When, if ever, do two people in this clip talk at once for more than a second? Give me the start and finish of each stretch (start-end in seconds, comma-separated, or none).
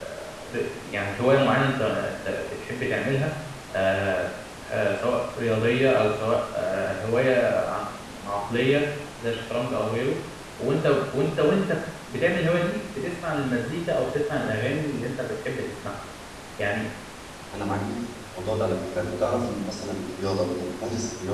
none